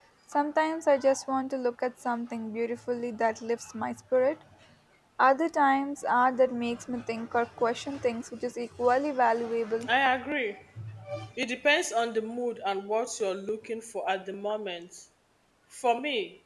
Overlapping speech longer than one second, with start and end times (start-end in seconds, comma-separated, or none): none